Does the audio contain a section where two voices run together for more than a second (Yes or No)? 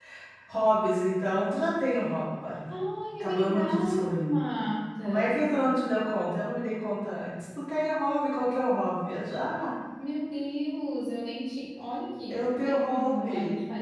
Yes